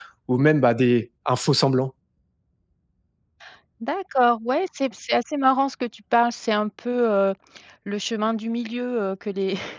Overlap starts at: none

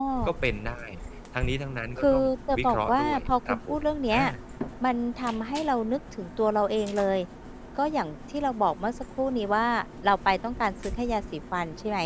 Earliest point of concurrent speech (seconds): 2.0 s

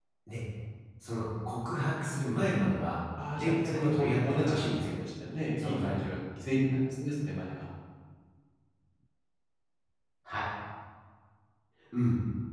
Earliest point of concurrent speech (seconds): 3.3 s

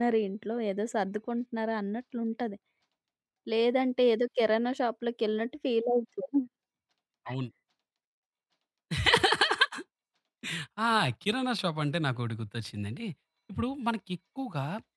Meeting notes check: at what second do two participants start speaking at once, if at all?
none

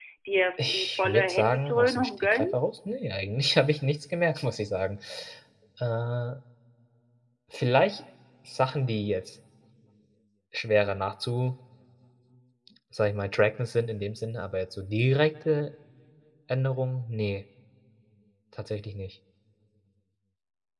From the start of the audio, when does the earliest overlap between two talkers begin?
0.6 s

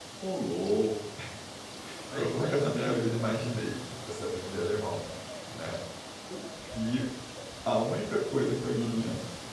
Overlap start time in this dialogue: 2.1 s

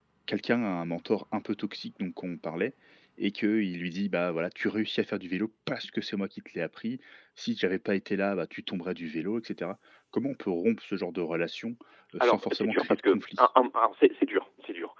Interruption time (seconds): 12.2 s

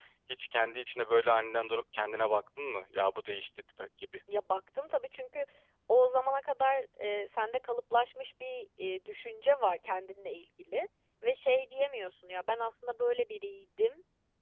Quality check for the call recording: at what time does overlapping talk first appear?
none

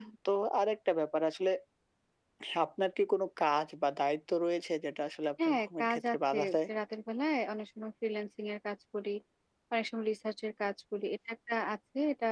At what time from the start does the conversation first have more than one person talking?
5.4 s

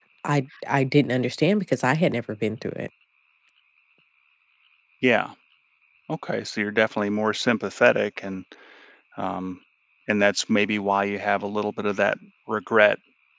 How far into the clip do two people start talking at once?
none

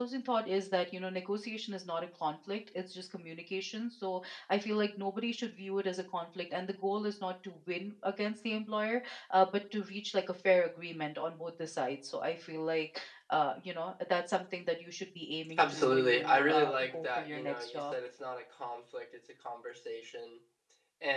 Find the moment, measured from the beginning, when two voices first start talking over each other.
15.4 s

